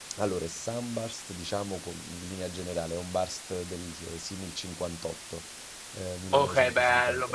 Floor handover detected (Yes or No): Yes